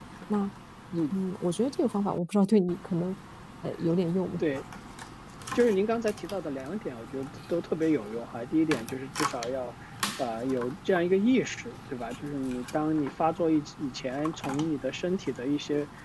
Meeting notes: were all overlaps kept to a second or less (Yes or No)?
Yes